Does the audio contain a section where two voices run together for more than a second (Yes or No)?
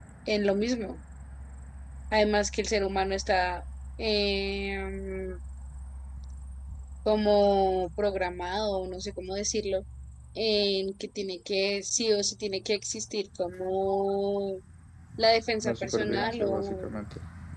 Yes